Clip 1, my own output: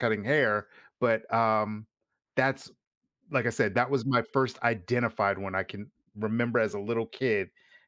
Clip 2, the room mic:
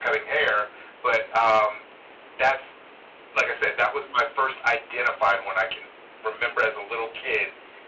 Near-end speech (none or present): none